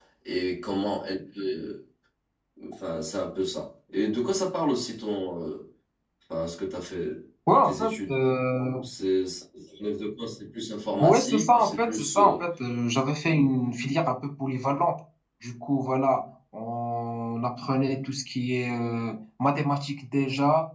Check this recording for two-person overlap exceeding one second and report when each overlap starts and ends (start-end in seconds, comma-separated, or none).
11.0-12.4